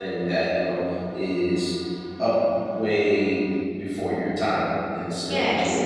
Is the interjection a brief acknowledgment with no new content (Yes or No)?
No